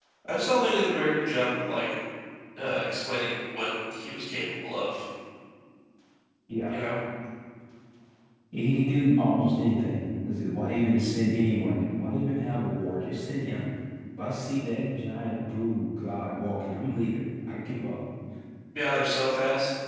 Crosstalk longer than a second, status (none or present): none